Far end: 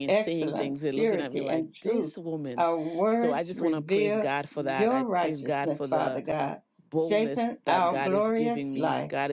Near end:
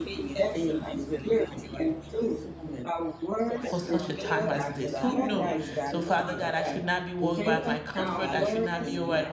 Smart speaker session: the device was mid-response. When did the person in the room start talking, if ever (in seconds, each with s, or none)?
3.6 s